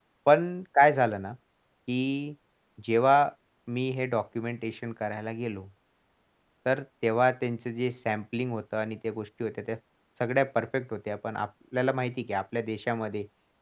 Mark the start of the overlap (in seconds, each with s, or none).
none